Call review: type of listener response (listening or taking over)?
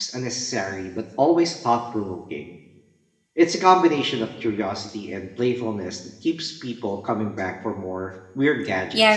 taking over